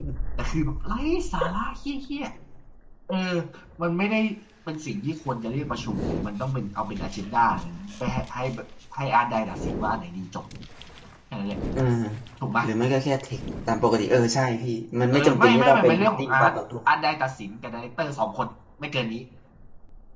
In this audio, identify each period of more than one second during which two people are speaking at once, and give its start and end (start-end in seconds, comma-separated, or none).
15.1-16.5